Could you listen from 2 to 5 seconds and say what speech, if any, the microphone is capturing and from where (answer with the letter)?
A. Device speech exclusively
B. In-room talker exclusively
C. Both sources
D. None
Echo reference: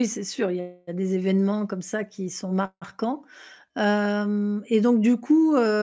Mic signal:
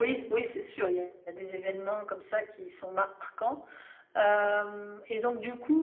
A